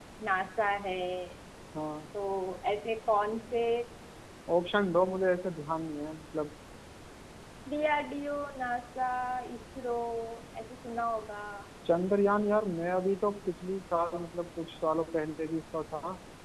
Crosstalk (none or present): none